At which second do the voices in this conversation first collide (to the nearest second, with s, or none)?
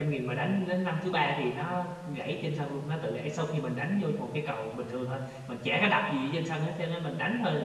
none